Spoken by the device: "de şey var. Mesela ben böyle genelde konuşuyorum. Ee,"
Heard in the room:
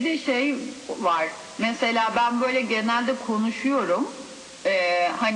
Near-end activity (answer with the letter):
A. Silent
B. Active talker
A